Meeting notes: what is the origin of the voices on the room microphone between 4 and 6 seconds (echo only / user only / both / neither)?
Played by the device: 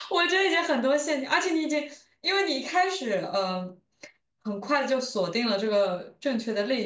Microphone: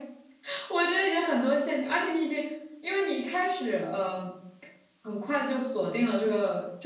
echo only